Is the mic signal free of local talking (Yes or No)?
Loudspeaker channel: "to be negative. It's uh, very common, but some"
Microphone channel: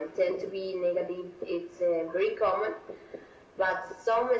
Yes